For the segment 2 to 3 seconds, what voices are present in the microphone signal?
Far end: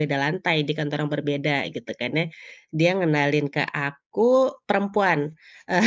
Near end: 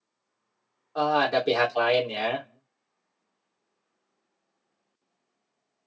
user only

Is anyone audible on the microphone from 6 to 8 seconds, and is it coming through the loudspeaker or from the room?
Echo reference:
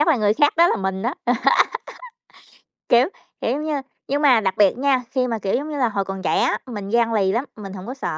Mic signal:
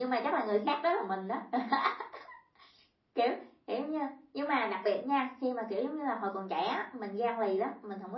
echo only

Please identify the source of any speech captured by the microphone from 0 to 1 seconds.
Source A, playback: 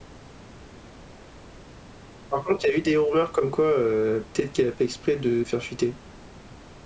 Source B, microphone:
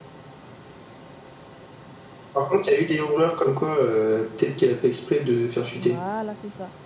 neither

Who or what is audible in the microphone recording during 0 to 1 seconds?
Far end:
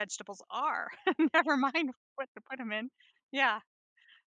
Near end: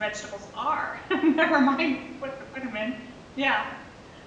echo only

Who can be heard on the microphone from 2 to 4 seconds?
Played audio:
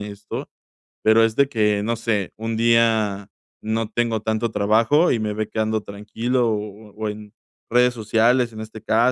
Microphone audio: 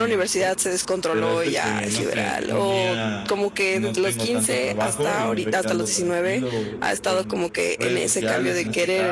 both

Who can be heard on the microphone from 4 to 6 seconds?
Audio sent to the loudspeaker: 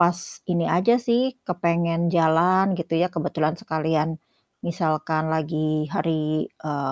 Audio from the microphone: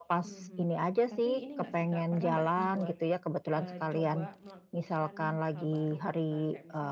both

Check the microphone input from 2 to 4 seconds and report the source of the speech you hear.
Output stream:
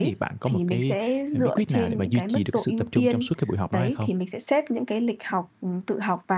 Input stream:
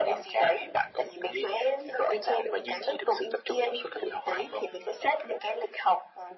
echo only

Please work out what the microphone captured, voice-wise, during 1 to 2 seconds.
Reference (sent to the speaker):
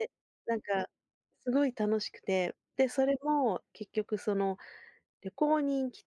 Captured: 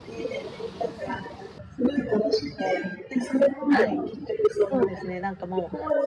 echo only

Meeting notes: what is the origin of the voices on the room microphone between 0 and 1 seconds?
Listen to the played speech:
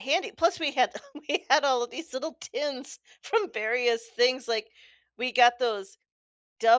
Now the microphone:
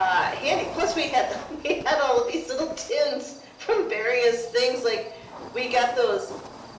echo only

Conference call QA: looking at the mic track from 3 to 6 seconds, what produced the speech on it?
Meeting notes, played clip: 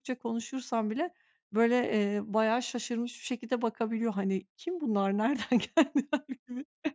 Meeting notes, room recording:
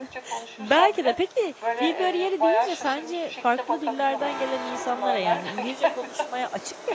both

